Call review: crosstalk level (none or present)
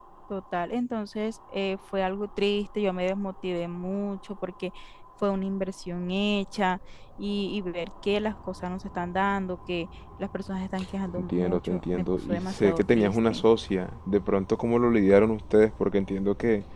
present